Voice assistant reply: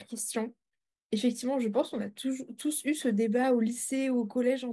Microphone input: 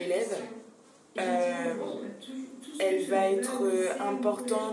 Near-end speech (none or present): present